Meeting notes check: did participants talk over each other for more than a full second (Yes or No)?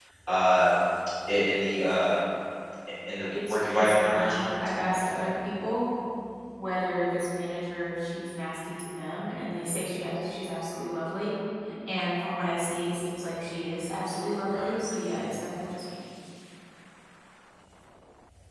Yes